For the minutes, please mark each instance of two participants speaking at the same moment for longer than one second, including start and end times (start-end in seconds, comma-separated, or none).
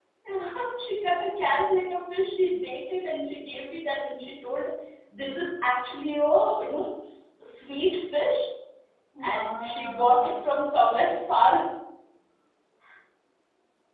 9.2-10.6